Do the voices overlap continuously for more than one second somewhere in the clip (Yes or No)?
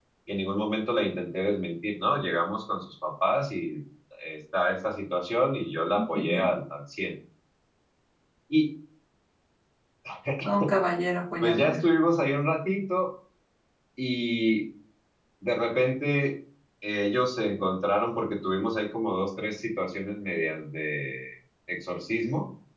No